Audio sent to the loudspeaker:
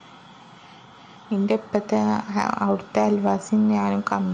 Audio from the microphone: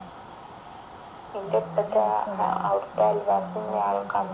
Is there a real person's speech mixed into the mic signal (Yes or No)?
Yes